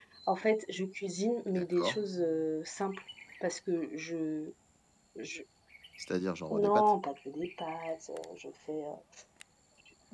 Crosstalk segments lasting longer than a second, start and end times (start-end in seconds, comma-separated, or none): none